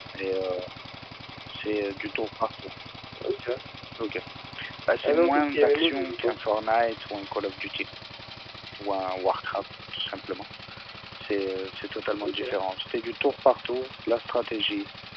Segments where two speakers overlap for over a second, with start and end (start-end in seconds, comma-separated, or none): 5.0-6.4